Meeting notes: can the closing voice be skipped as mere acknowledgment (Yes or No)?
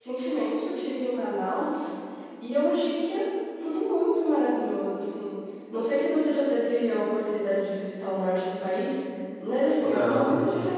Yes